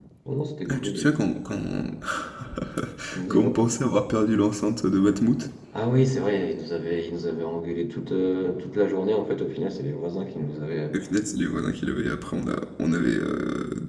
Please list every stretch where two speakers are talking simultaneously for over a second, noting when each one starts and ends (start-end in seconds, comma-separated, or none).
none